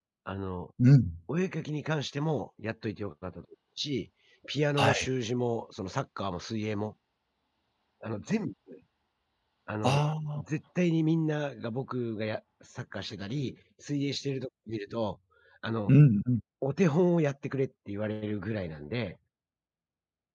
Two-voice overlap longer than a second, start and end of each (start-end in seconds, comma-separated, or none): none